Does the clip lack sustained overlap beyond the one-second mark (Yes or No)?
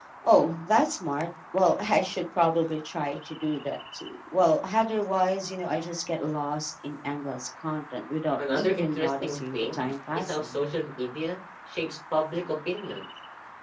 No